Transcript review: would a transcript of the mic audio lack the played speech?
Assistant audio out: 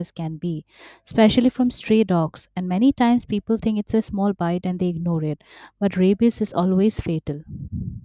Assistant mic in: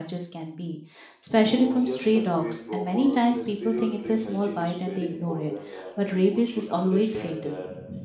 No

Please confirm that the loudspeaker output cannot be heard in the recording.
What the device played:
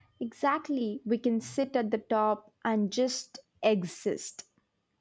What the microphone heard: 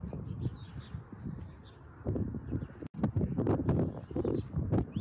Yes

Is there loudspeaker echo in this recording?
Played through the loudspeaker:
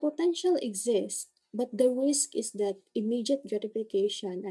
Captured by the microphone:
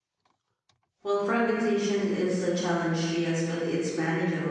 No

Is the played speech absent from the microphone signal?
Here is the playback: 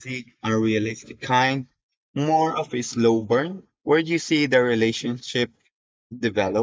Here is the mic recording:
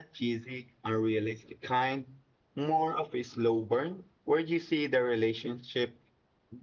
No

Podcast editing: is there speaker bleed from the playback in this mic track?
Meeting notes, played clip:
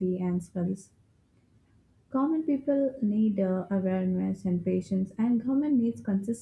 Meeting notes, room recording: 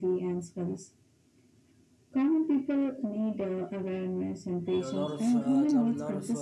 Yes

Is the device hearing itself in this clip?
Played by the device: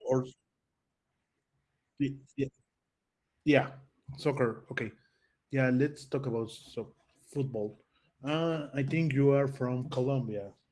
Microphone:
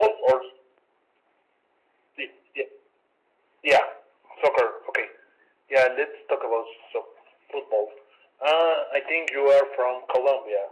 Yes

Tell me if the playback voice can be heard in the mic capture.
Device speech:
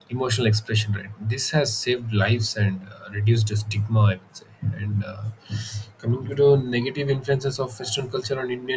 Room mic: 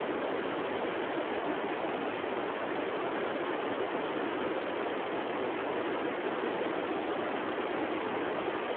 No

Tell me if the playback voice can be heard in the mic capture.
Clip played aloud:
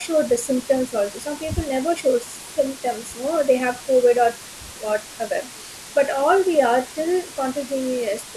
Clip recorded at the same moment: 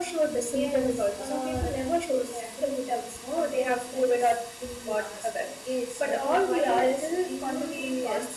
Yes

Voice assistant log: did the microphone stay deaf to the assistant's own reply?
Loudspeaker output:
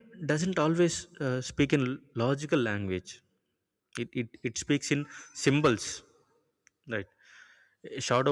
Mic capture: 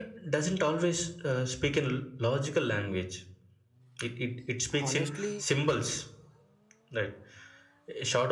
No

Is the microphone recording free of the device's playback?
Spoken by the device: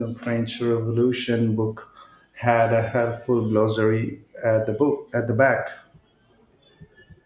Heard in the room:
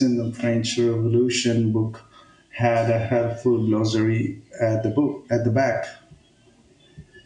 No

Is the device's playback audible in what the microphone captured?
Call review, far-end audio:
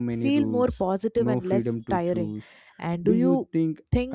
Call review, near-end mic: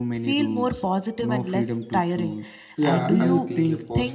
Yes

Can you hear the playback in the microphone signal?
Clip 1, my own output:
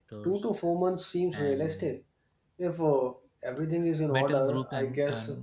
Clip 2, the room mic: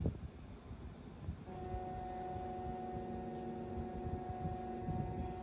No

